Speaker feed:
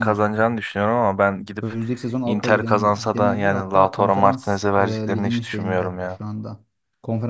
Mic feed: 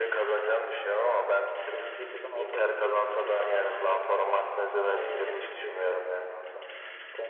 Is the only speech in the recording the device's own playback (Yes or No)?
Yes